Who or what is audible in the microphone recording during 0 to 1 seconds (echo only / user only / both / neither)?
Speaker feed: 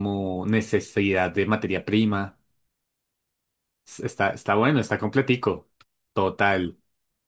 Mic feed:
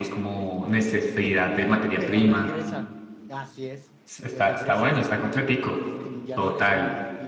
both